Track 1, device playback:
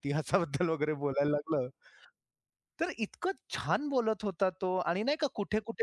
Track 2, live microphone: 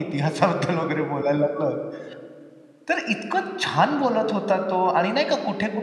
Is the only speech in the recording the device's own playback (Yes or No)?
Yes